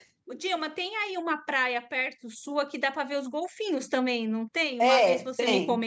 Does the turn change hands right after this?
Yes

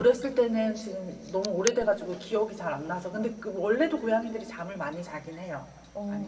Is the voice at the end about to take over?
Yes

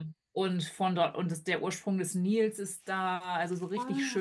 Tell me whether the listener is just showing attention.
Yes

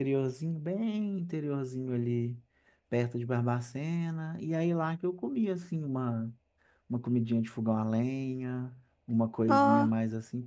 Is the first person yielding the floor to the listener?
No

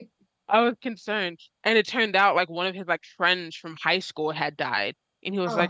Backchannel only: Yes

